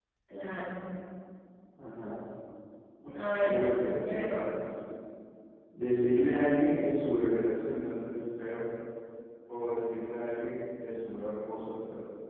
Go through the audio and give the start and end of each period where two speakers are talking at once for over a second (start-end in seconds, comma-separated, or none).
3.1-4.5